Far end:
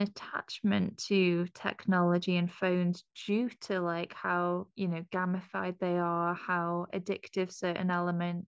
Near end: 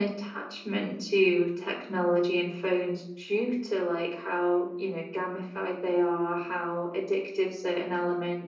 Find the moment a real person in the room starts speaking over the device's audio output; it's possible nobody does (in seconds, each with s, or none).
none